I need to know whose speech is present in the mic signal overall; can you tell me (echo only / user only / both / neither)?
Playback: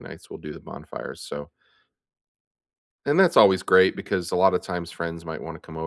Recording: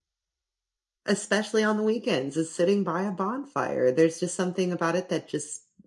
user only